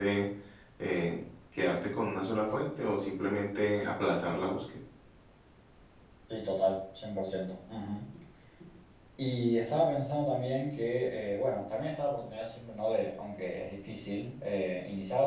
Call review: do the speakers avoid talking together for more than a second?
Yes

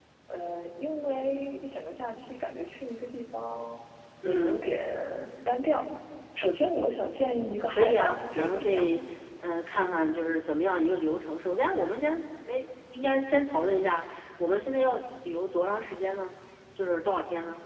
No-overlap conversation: No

